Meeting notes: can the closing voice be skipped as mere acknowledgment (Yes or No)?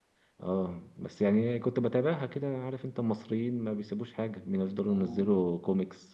Yes